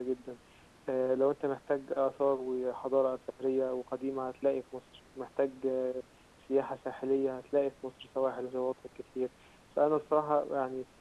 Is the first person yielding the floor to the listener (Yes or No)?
No